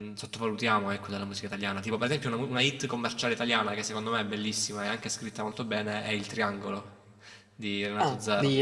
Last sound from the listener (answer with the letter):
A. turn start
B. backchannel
A